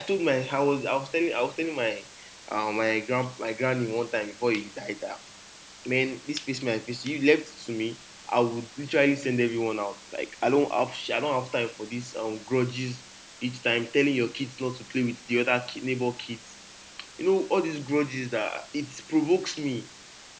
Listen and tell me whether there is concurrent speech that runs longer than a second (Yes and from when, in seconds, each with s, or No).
No